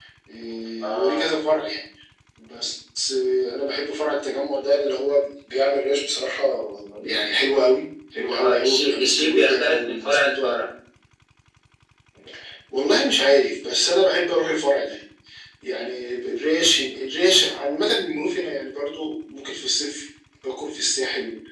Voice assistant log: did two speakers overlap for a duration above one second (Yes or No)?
Yes